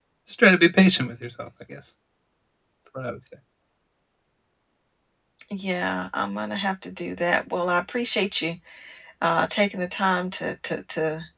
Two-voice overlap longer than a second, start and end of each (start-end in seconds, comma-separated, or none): none